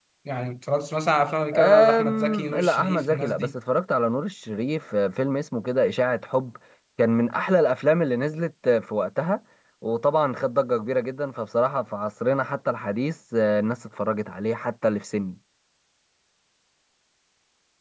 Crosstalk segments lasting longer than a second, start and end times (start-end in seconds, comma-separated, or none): 1.5-3.5